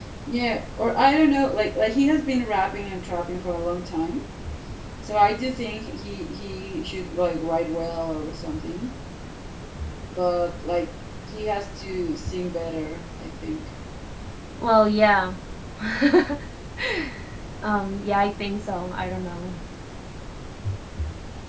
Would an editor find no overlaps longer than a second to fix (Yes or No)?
Yes